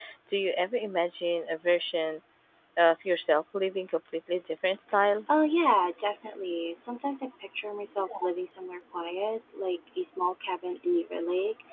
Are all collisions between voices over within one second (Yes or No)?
Yes